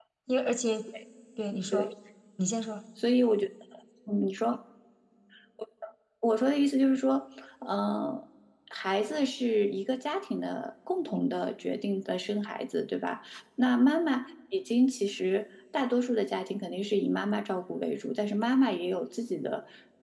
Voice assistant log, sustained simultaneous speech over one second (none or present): none